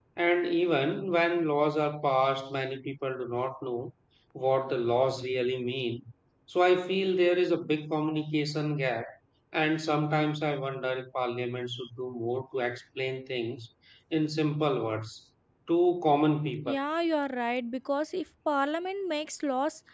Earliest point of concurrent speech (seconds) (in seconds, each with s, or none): none